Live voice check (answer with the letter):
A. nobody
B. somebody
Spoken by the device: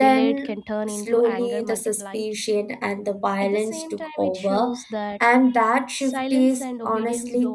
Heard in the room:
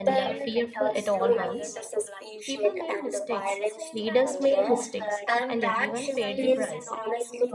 B